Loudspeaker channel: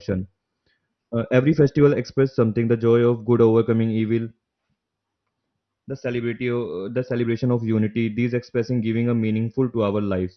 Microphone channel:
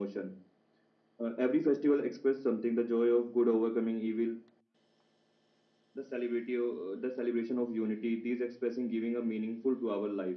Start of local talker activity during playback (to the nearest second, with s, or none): none